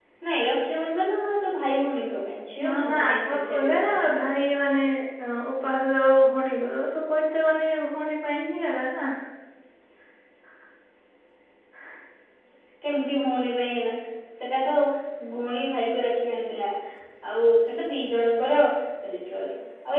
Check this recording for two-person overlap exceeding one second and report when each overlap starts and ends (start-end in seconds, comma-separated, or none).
2.6-4.2